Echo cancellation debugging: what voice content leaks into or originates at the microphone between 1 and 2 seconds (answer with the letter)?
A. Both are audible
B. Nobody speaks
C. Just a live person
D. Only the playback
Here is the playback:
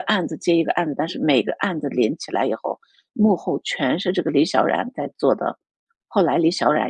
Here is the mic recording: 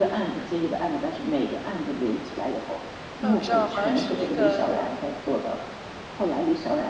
D